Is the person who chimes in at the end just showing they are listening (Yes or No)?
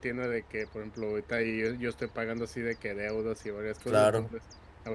Yes